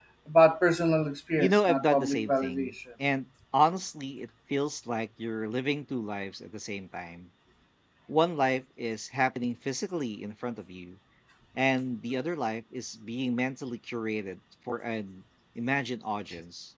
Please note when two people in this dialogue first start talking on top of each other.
1 s

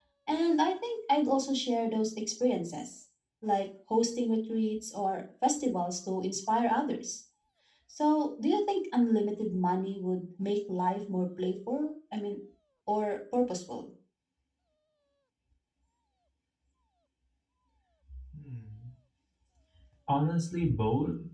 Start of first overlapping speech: none

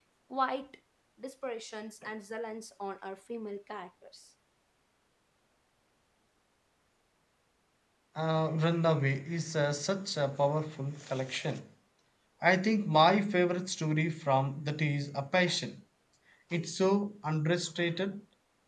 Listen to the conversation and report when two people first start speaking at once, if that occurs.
none

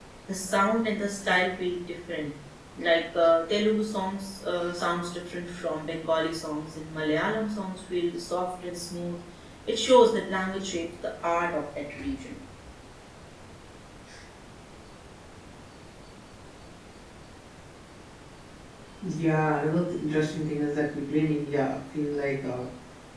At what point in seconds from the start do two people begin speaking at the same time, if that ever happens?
none

